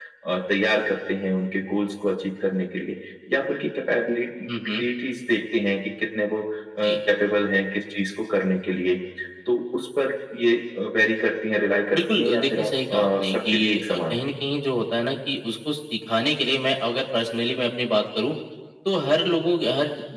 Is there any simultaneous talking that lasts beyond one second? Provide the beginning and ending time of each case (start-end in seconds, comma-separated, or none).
11.9-14.3